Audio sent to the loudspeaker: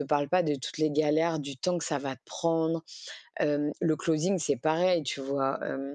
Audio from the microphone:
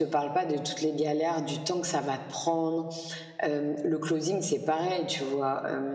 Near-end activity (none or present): none